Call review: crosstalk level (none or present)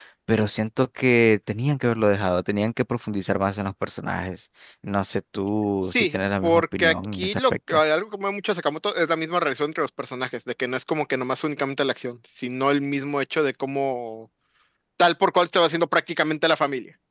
present